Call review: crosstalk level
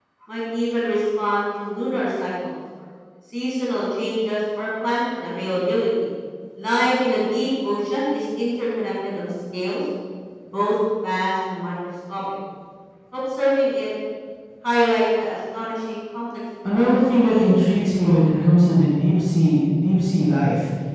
present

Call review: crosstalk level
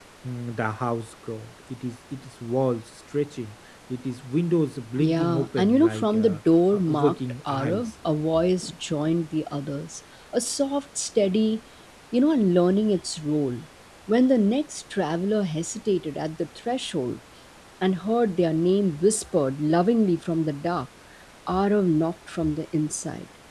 present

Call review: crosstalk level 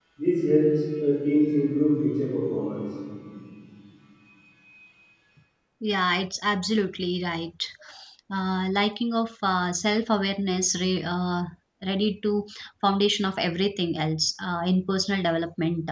none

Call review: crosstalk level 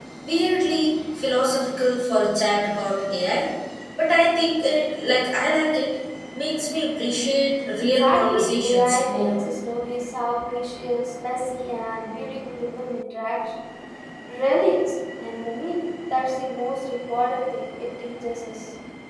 present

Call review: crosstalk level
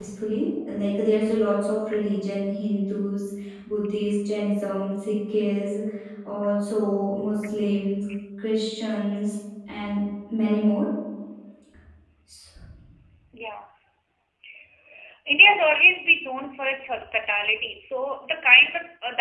none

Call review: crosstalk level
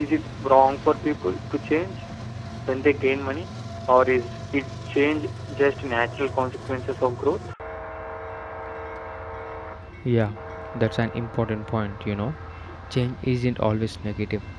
none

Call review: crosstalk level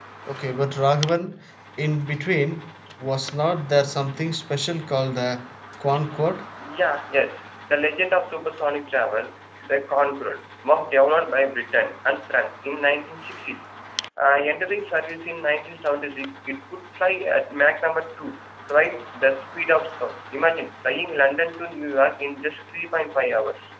none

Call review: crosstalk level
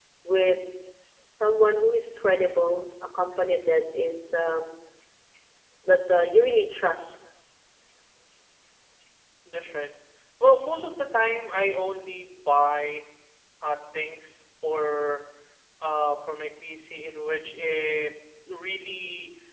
none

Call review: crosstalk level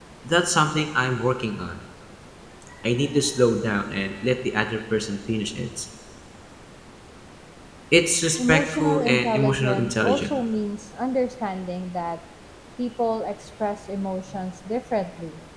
present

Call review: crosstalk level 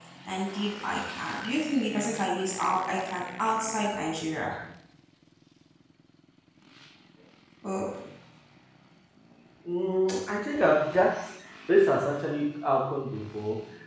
none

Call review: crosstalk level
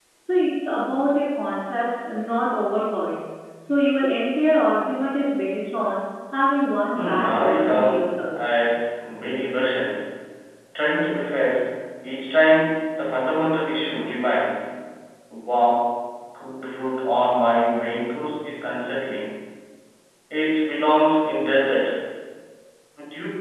present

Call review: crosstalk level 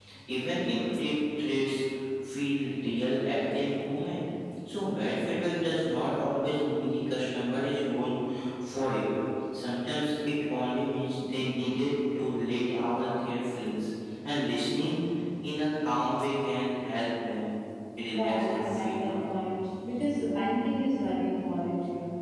present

